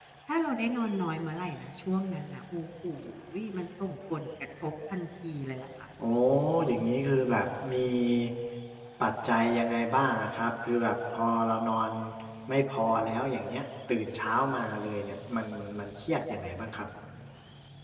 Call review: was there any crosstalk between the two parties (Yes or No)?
No